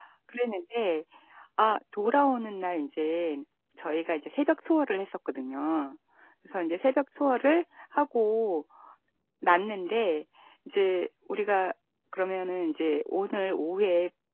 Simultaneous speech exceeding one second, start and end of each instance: none

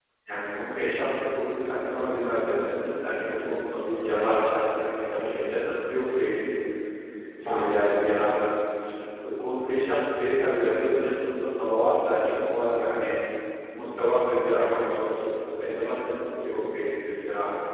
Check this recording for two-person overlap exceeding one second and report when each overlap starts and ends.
none

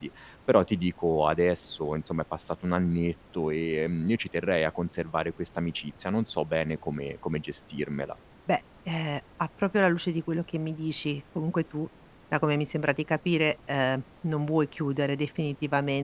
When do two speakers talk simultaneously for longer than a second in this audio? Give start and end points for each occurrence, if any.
none

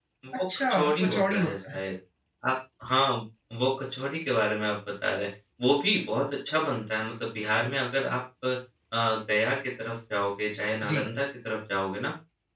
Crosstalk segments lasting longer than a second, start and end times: 0.6-1.8

